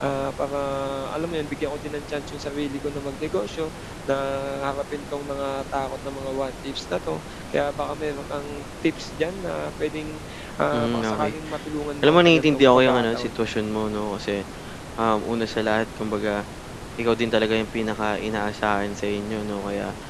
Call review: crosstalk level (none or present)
present